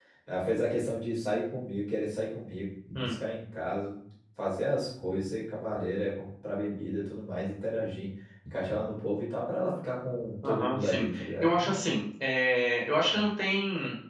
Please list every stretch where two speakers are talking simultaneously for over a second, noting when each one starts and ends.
10.4-11.8

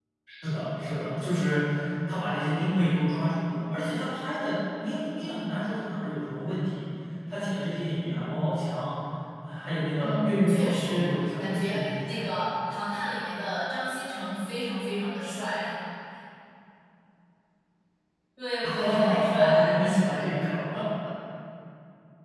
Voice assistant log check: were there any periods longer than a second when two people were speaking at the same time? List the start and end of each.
10.0-12.2, 18.8-20.3

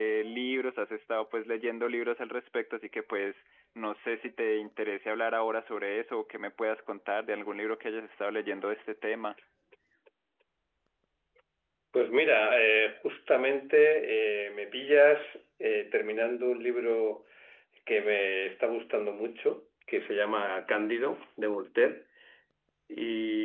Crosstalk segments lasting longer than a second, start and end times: none

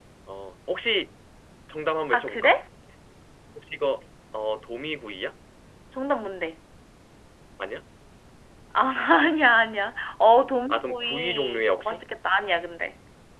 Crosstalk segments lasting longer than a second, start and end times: 10.7-12.0

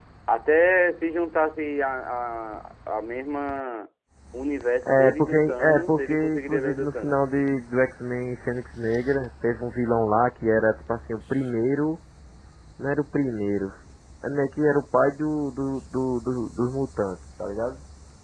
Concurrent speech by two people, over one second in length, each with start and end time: 4.8-7.2

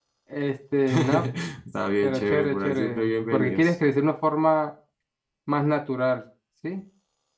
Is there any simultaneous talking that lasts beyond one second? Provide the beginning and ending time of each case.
2.0-3.7

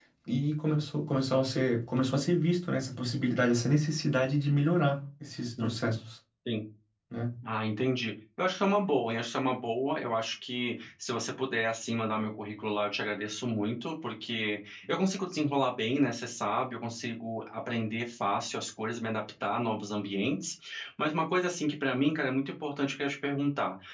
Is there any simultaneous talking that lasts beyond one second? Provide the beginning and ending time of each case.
none

